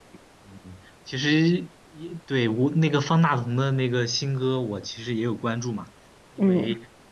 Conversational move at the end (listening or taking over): listening